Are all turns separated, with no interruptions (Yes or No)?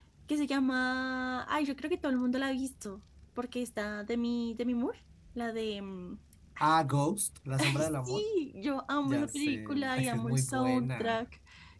No